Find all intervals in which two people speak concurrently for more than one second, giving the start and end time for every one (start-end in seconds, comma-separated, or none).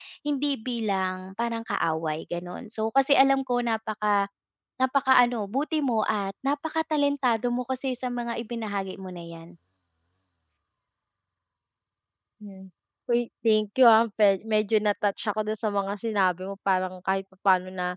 none